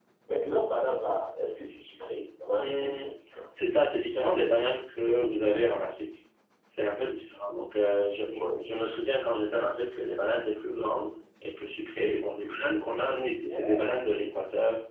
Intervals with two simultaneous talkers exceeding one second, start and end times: none

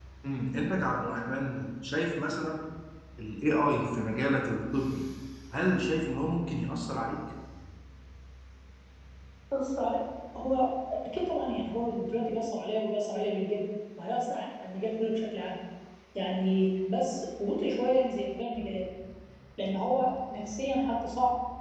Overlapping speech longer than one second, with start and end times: none

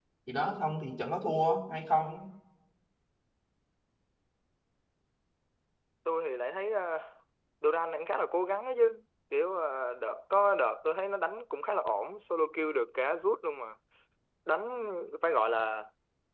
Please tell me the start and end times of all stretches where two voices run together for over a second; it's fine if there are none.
none

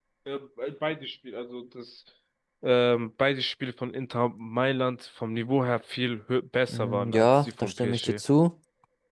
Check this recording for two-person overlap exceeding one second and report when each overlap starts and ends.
6.7-8.2

